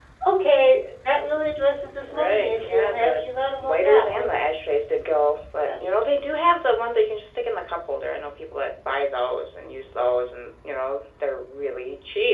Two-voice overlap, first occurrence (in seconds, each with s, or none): 2.0 s